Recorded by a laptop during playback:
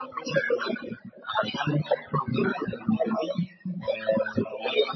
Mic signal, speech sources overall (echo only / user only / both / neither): echo only